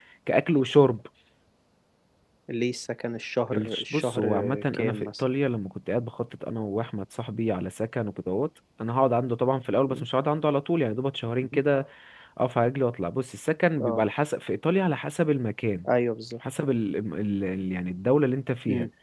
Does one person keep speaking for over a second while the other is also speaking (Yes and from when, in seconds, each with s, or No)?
Yes, from 3.5 s